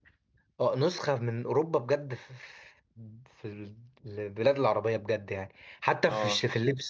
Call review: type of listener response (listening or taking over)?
listening